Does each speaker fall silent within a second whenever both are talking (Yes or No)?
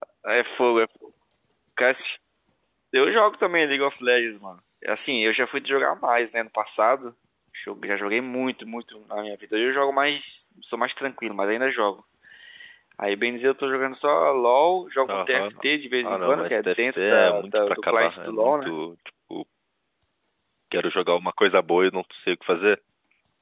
No